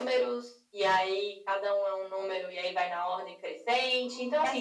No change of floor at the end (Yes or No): No